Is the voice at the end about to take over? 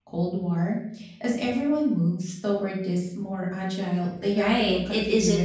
Yes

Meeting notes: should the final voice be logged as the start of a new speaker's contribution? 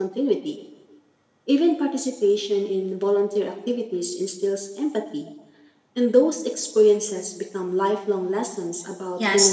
Yes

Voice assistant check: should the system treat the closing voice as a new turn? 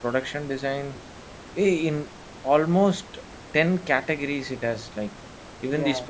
No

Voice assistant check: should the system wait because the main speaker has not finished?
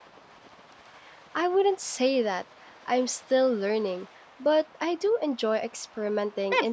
No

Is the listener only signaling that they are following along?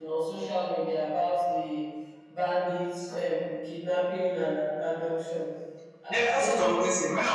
No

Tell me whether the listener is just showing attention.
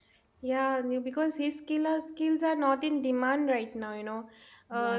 Yes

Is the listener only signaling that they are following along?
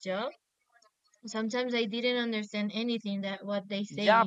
No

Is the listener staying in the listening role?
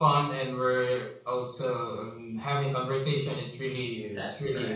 Yes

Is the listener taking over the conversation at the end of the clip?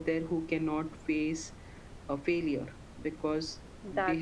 No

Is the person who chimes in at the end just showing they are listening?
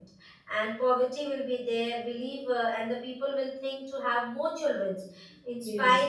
Yes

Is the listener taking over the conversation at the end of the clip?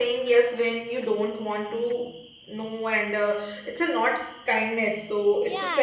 Yes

